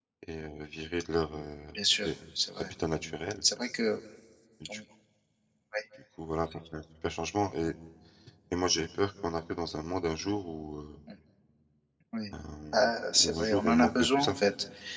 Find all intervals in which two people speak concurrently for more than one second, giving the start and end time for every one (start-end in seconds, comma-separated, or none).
12.7-14.4